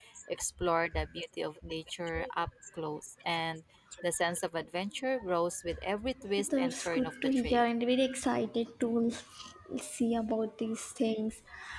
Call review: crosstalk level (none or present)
present